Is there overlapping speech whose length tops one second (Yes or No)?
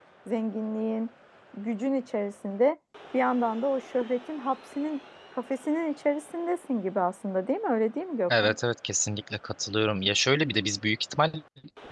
No